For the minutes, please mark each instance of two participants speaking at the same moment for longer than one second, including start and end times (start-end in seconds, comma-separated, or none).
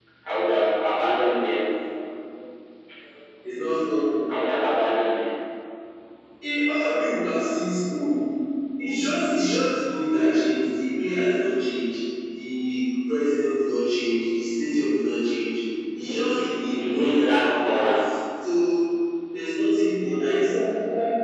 16.0-18.1